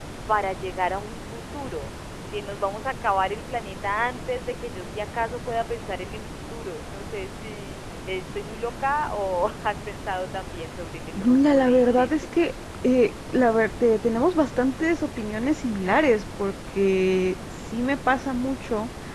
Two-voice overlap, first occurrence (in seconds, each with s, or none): 11.2 s